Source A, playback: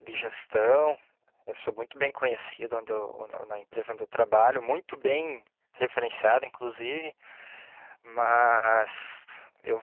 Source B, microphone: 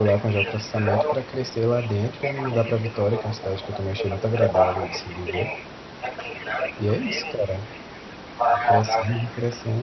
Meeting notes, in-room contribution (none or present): present